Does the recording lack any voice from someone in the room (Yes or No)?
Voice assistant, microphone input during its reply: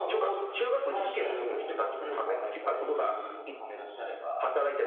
No